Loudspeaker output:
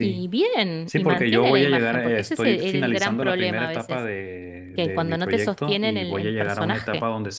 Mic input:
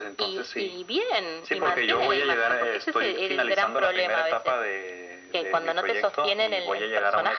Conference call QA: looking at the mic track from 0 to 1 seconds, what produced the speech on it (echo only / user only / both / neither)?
echo only